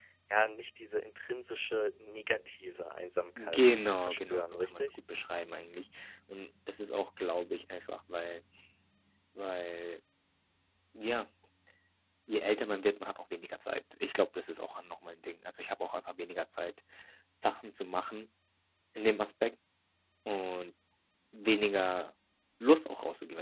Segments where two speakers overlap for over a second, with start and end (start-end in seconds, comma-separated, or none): 3.4-4.9